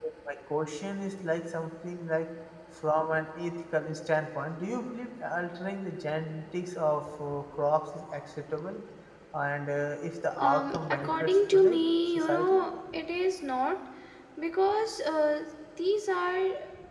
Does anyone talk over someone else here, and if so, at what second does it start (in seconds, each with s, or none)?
10.3 s